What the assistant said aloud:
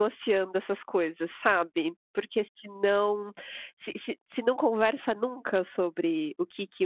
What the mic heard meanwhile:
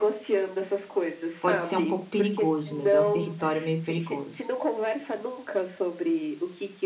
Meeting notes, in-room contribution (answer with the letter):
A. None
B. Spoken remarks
B